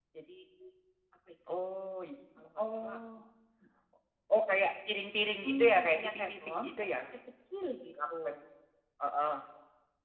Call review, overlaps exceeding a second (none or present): present